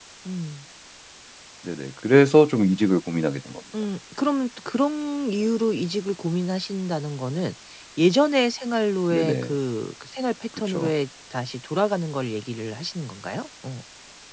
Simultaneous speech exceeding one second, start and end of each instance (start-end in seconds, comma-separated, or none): none